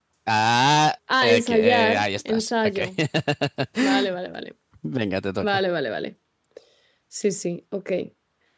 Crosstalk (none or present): present